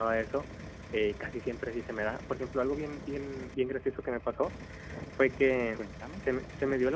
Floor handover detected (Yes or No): No